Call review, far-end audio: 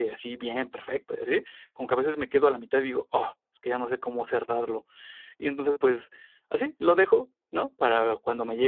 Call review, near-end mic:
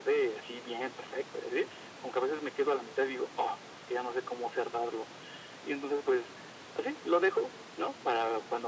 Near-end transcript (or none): none